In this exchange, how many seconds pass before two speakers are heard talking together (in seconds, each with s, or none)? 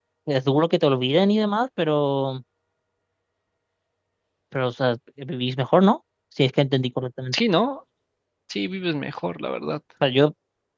none